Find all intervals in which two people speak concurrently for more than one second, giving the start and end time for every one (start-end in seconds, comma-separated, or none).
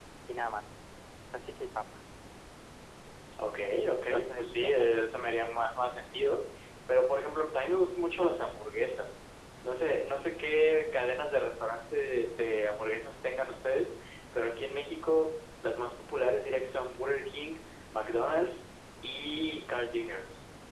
4.0-5.4